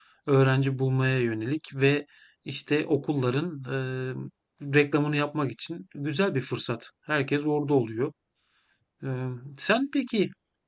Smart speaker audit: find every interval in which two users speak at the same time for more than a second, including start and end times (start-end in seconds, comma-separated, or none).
none